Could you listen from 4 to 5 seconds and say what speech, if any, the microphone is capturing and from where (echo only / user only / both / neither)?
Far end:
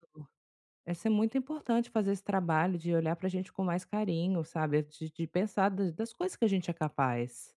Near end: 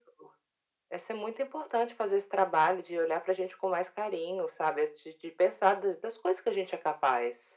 echo only